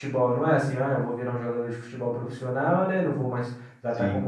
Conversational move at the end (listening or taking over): listening